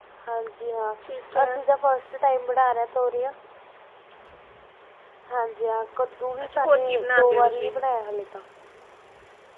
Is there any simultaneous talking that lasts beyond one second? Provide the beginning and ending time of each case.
6.4-7.7

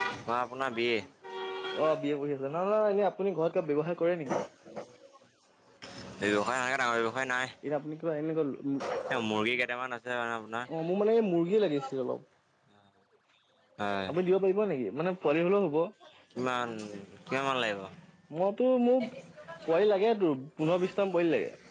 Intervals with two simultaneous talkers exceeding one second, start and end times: none

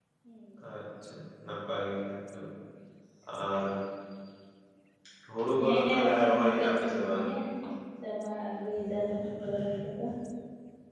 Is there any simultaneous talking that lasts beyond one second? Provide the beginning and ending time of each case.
5.6-7.2

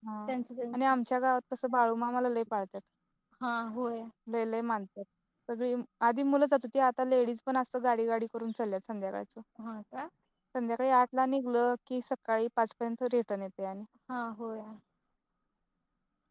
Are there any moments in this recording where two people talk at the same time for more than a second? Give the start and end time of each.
none

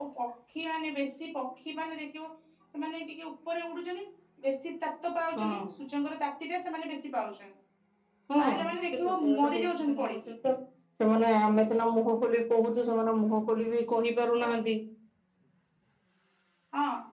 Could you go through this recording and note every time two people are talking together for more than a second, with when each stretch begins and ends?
8.4-10.2

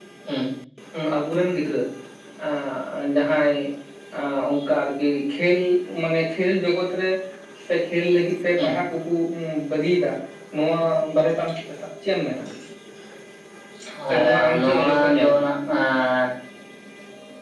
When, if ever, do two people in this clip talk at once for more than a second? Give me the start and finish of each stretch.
14.1-15.4

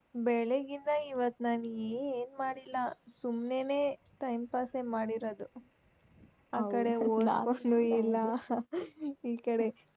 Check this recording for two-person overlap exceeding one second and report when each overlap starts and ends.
6.6-8.2

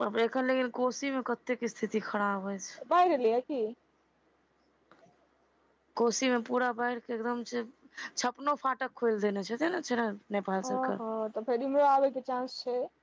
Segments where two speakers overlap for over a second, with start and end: none

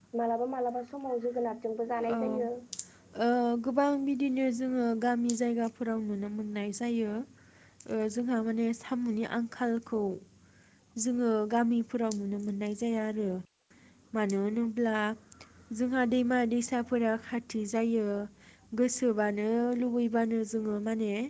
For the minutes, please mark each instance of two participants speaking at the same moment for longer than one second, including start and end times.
none

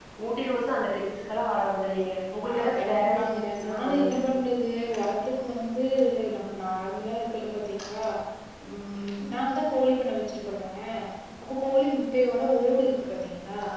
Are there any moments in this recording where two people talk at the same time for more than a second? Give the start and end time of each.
2.5-4.1

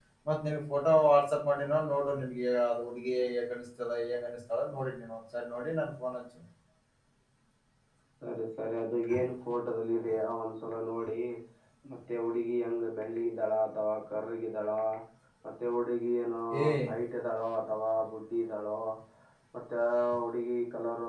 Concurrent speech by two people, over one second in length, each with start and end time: none

